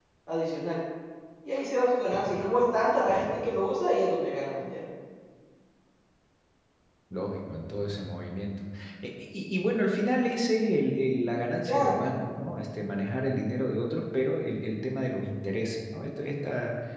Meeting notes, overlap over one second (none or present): none